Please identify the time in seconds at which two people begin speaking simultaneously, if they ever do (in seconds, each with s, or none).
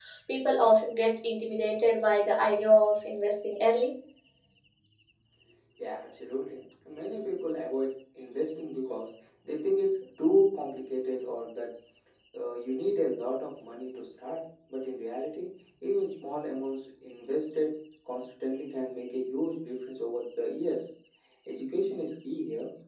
none